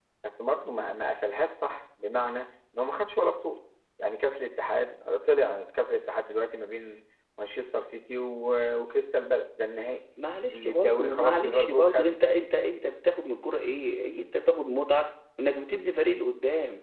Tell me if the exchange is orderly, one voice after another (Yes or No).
No